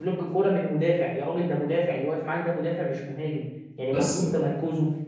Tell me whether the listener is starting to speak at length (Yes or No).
No